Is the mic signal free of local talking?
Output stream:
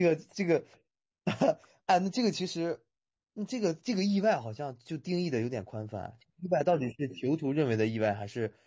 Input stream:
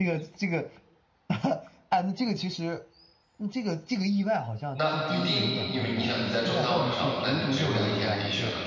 No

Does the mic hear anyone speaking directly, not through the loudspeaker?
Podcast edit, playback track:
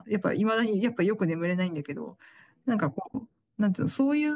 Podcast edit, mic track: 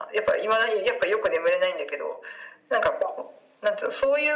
No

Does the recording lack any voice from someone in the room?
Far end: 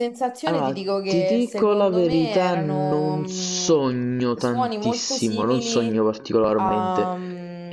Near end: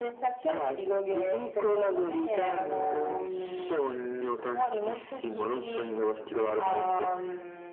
Yes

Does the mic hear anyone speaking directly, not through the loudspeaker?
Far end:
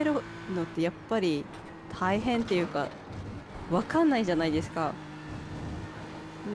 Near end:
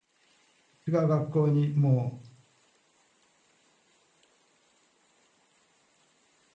Yes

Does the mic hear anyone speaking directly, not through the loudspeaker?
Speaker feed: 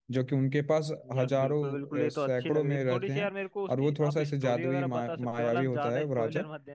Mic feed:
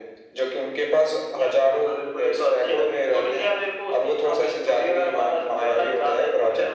No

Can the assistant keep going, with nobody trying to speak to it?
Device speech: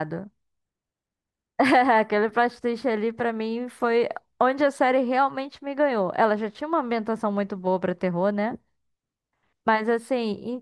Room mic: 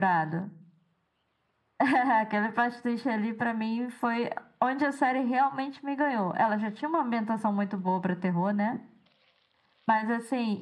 Yes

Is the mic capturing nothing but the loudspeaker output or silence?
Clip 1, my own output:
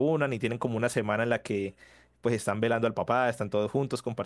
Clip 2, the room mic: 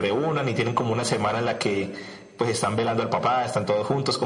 Yes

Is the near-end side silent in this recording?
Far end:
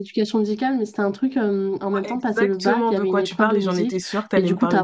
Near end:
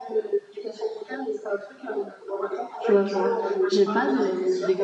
No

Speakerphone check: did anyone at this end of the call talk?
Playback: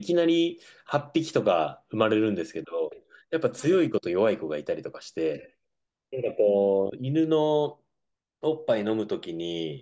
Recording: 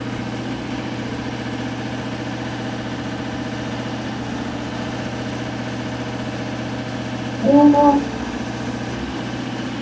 Yes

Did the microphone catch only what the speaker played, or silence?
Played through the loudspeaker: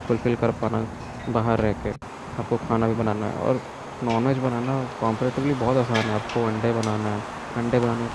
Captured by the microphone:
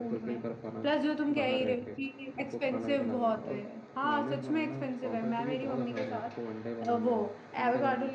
No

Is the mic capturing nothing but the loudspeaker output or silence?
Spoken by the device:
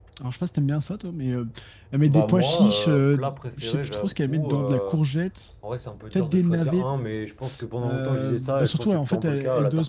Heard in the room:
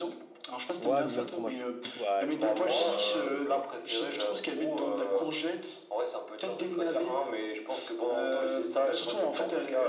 No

